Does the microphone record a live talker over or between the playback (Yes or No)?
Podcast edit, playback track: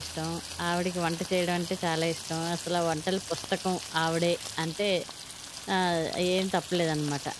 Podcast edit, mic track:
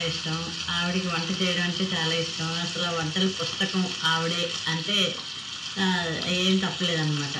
No